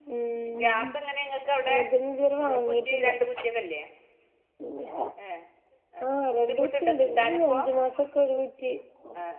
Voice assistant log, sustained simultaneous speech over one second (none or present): present